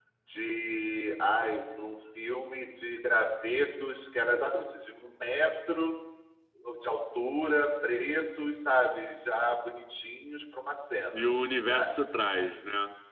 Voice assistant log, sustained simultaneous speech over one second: none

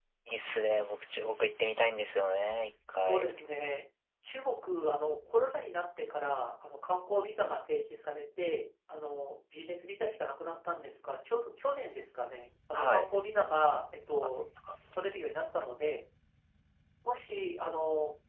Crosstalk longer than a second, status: none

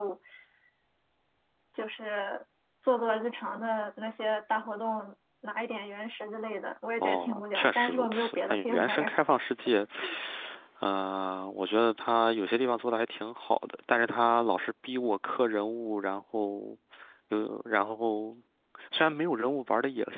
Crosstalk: present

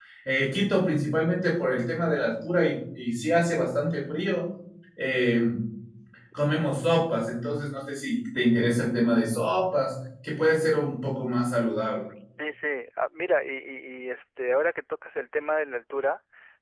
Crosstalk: none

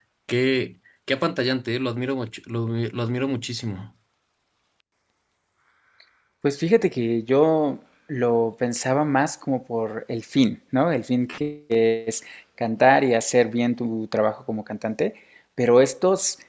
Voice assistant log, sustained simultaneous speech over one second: none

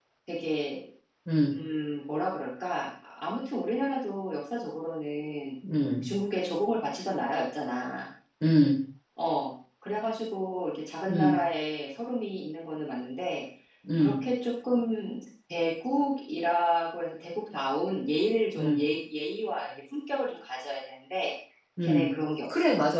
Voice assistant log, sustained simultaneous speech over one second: none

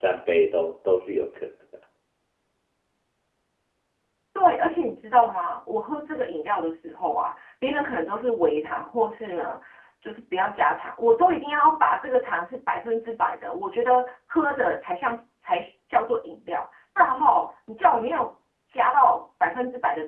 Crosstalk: none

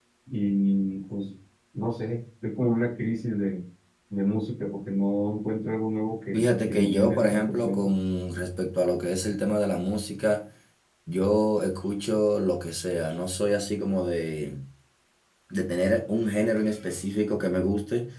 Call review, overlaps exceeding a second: present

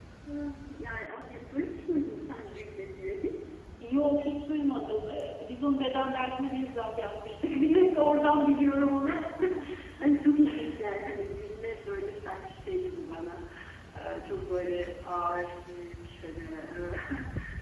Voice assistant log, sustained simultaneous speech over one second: none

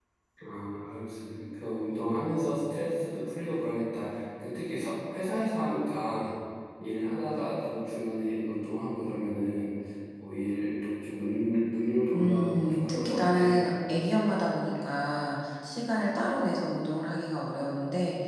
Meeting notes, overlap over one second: present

